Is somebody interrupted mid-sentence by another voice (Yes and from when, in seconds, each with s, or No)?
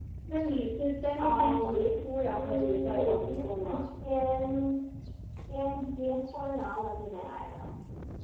Yes, from 1.2 s